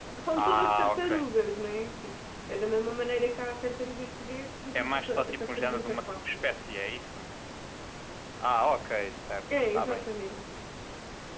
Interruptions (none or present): present